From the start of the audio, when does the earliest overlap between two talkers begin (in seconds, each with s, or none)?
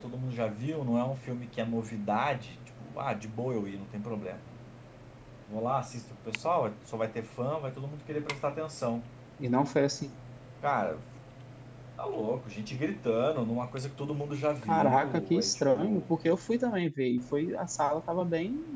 14.6 s